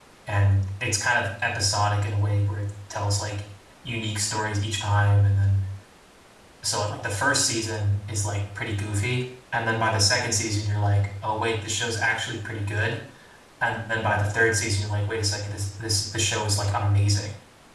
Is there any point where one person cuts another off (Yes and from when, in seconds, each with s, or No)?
No